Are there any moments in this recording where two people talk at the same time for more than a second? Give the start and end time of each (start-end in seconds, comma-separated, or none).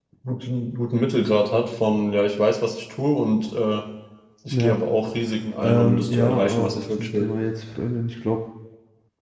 5.6-7.3